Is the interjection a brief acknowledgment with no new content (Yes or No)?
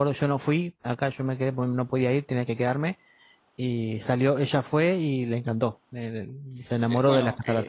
No